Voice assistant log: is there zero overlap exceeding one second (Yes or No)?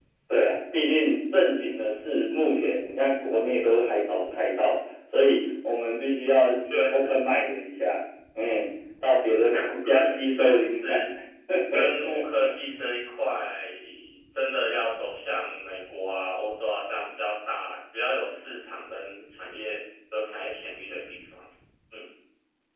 No